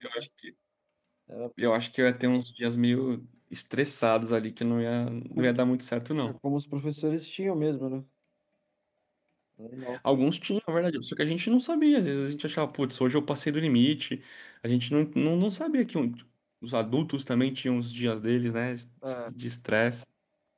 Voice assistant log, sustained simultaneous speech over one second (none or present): none